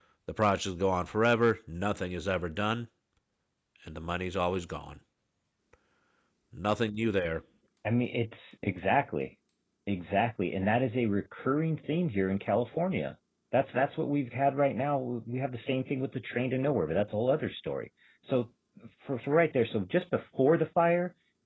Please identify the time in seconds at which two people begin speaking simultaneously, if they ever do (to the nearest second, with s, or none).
none